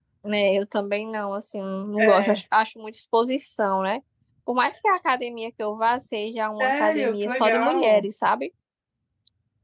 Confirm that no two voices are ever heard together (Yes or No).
No